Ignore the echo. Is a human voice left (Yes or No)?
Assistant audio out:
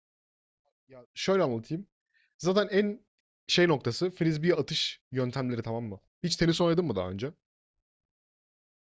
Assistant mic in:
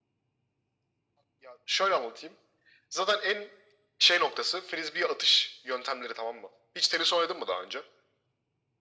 No